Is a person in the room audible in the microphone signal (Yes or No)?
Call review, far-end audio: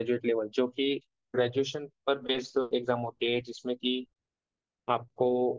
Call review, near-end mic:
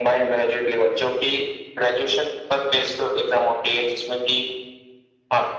No